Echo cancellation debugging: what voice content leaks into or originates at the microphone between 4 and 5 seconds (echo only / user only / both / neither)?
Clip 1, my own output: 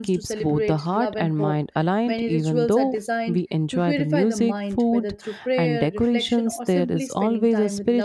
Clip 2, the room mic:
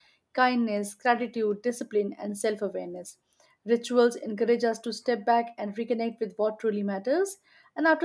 user only